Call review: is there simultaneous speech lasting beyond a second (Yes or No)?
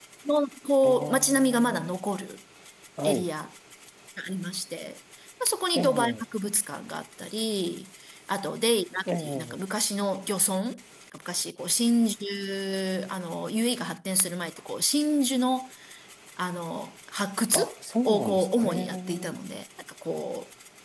Yes